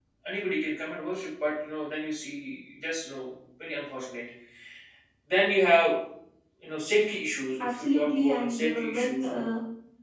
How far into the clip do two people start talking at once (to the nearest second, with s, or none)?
8 s